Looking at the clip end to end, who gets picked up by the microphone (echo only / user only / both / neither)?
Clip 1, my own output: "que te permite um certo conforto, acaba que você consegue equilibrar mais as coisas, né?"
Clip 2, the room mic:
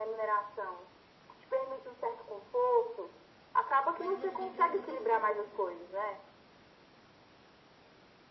both